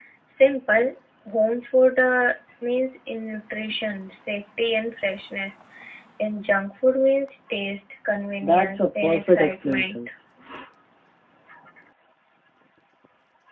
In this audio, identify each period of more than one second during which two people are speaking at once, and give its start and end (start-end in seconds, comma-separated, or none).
8.4-9.9